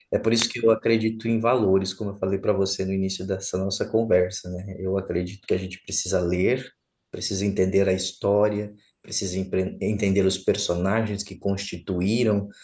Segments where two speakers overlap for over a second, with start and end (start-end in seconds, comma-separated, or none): none